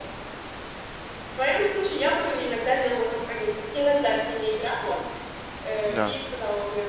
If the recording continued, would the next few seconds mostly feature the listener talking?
No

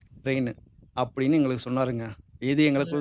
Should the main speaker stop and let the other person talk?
No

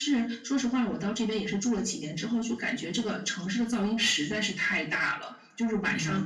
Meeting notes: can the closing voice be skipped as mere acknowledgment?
Yes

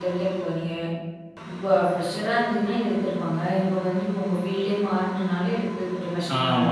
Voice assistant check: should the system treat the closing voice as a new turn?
Yes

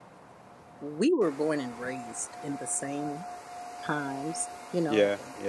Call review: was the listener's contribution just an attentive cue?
Yes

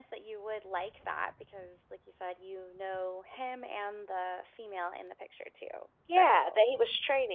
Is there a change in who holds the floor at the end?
Yes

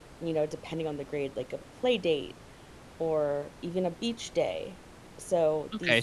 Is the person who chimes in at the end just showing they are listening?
No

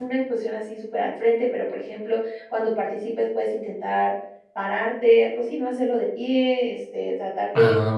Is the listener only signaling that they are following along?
Yes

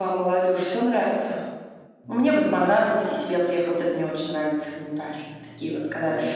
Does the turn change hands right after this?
Yes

